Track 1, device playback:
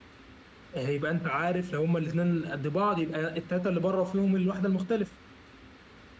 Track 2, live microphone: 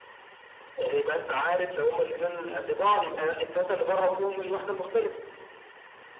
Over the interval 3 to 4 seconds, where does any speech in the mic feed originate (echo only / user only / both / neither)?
echo only